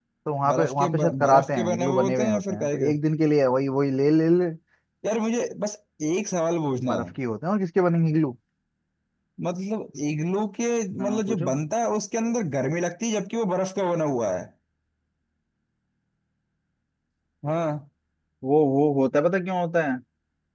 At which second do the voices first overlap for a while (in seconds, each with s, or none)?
0.5 s